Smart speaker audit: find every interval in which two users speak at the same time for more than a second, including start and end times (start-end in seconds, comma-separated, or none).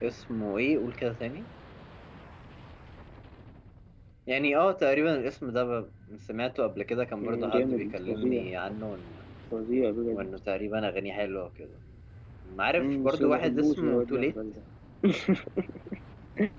7.2-8.4, 12.8-14.3